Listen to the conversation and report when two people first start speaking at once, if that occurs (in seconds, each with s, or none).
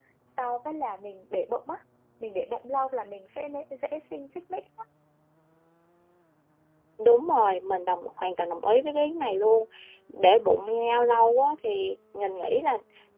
none